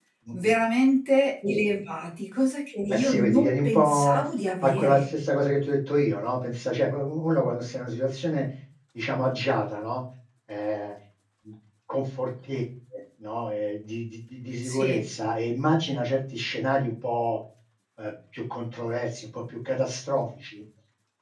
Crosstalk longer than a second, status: present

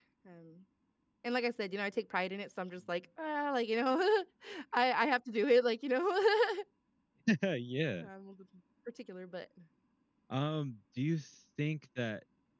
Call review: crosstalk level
none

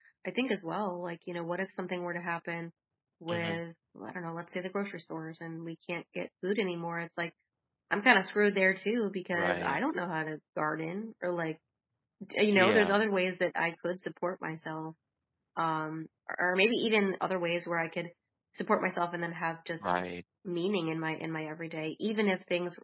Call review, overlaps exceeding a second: none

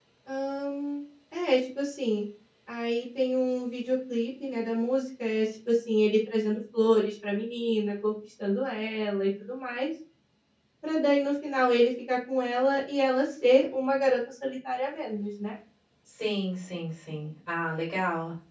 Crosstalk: none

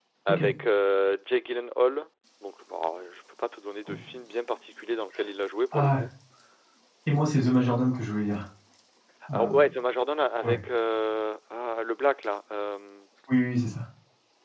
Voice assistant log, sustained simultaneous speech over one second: none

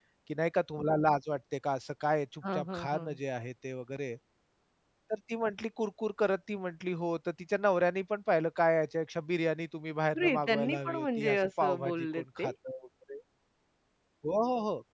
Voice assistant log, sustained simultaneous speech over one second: present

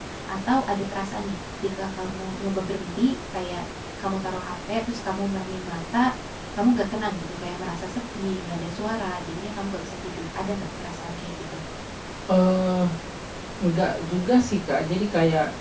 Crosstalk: none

